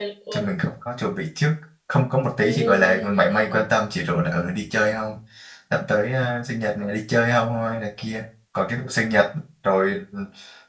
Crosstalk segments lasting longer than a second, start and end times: 2.4-3.6

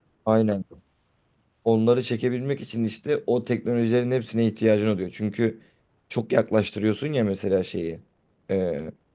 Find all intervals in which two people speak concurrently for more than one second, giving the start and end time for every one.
none

